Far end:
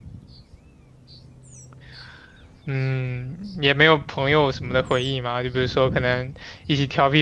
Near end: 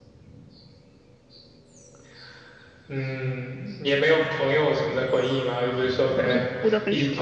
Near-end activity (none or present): present